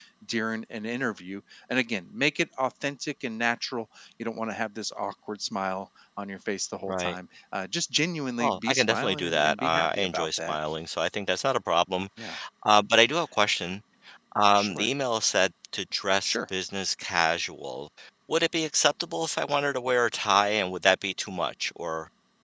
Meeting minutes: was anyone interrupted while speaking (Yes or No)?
Yes